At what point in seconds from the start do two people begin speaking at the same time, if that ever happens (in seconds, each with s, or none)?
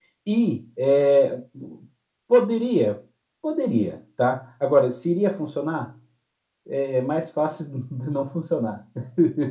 none